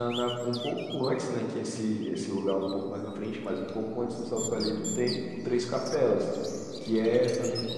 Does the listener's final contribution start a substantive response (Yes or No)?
No